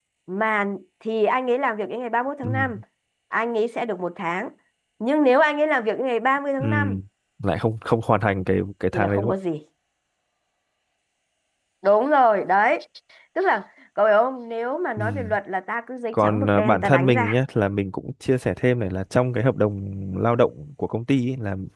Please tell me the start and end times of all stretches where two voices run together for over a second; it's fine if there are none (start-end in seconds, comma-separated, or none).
16.1-17.4